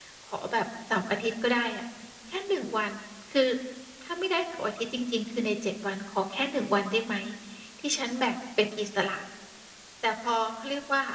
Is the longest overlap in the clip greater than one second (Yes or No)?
No